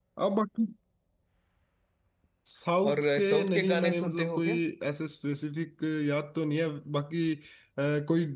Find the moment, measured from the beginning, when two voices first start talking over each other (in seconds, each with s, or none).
2.9 s